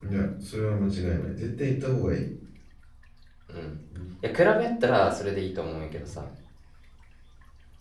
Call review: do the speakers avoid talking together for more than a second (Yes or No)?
Yes